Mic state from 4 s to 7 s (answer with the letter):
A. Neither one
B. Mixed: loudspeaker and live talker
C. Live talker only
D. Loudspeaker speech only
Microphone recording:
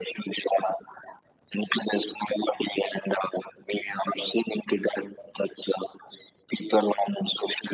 D